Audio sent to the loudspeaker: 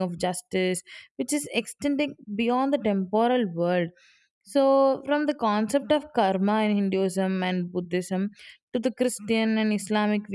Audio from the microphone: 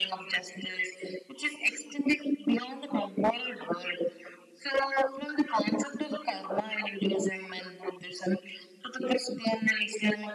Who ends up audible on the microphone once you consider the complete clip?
echo only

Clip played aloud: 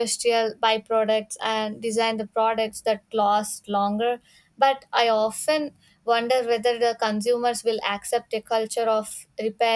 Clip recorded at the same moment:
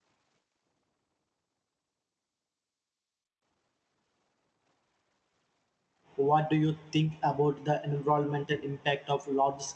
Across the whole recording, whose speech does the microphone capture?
user only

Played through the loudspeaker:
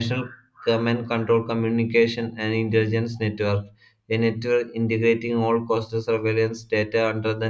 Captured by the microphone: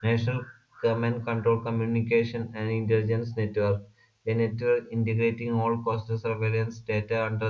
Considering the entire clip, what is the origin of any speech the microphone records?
echo only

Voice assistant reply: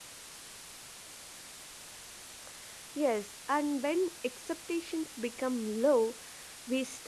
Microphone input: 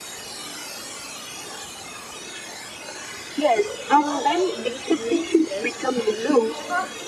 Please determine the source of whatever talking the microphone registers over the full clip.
both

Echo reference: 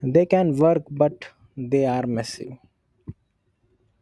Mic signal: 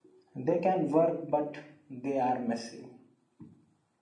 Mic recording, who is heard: echo only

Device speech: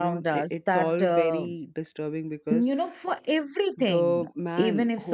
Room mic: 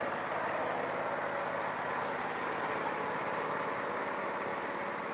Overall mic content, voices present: neither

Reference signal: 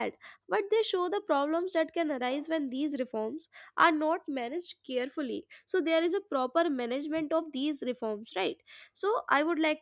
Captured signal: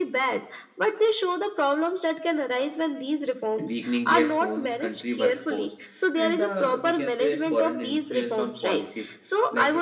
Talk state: both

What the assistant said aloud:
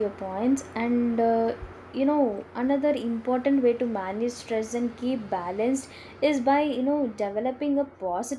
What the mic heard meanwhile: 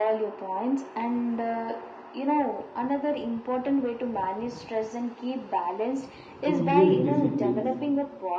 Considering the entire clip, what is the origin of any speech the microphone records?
both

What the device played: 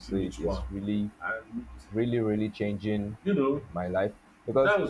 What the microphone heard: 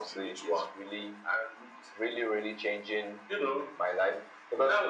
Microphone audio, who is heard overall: echo only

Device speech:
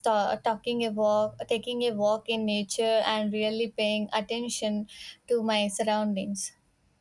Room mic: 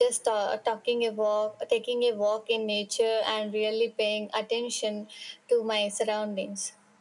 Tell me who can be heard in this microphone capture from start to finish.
echo only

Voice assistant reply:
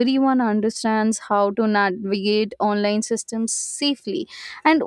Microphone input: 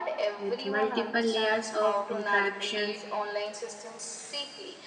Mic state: both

